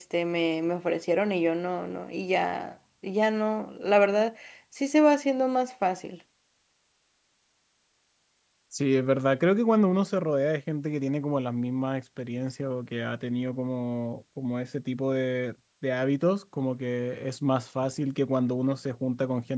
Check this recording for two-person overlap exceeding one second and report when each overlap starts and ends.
none

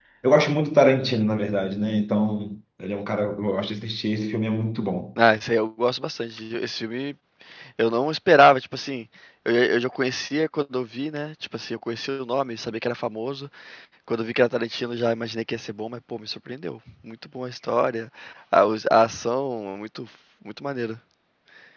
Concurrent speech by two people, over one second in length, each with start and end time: none

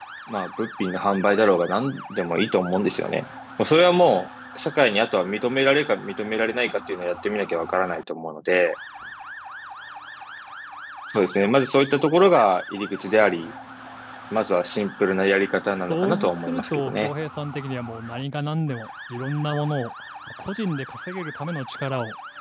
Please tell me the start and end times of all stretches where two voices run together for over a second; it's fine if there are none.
15.9-17.1

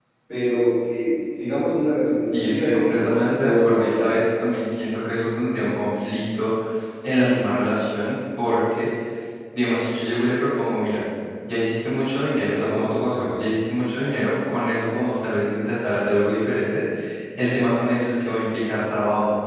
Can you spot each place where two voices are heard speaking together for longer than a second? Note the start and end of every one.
2.3-4.1

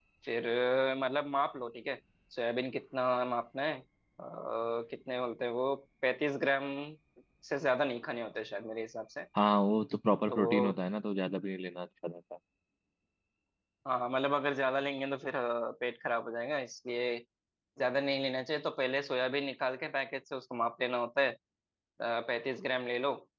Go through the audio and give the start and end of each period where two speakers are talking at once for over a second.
none

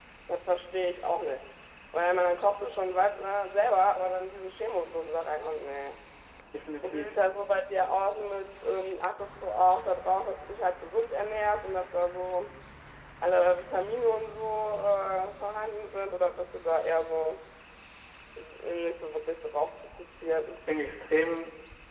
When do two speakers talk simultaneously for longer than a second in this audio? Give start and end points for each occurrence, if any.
none

